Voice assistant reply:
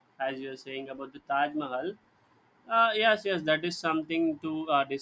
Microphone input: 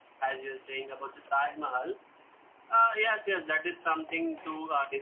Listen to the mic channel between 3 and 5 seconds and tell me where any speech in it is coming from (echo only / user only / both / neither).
echo only